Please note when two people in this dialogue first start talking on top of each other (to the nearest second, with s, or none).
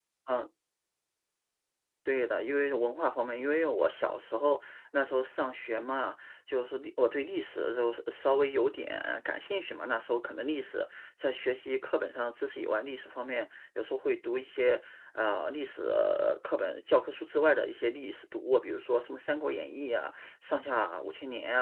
none